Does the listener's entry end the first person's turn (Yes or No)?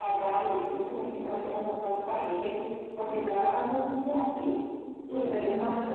No